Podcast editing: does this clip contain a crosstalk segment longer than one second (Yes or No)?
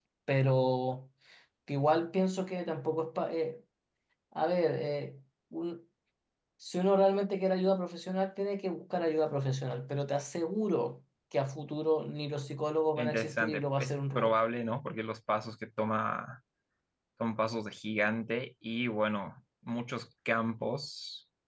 Yes